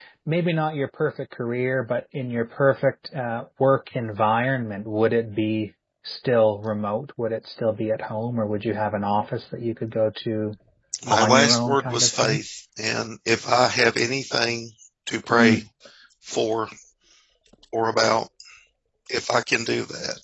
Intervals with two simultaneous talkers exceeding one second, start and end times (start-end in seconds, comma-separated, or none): 11.1-12.4